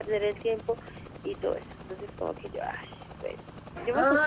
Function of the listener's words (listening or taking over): taking over